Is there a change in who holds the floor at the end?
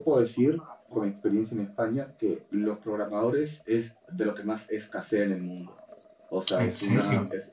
No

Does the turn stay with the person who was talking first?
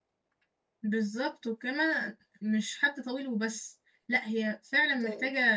Yes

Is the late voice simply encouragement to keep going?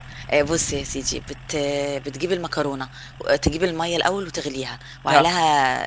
Yes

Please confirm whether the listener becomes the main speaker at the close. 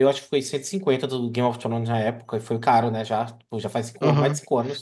Yes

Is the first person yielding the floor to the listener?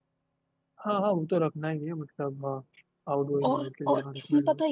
Yes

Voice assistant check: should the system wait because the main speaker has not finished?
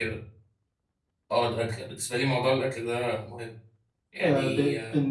No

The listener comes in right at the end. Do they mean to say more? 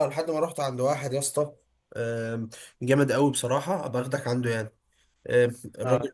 No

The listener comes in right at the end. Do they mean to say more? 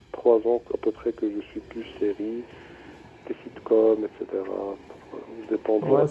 Yes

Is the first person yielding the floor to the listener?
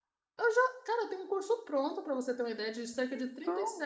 No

